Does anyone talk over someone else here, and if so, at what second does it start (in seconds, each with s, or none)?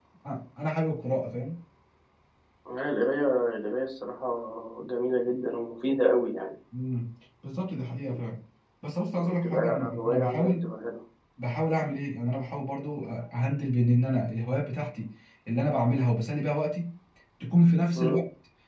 9.1 s